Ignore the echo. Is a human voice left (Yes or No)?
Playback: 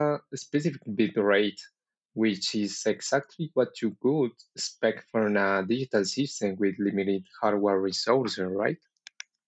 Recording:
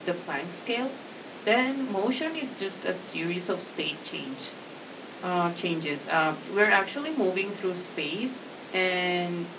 Yes